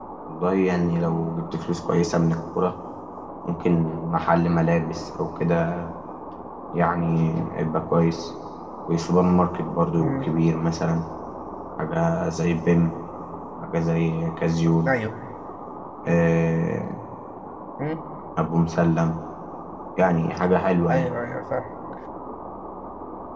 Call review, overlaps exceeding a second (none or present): none